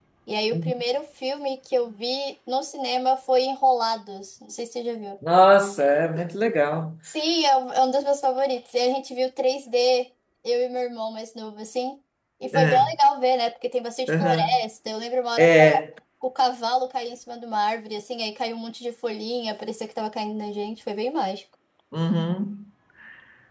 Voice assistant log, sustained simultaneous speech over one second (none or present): none